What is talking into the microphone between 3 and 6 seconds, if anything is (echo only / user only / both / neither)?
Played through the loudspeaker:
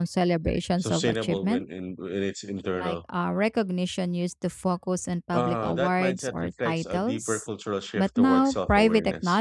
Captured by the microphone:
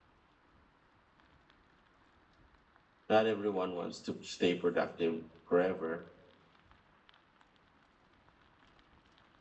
user only